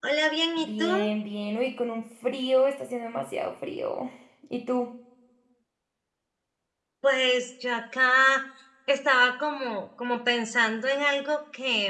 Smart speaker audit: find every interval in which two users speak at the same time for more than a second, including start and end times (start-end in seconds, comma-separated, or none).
none